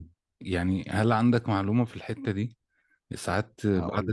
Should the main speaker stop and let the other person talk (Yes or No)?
No